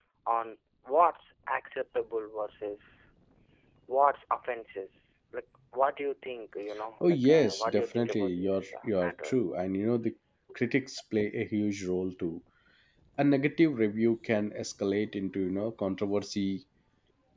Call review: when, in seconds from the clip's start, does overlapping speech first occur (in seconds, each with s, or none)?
7.0 s